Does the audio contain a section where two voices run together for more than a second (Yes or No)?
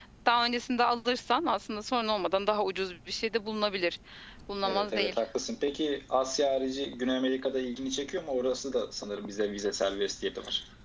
No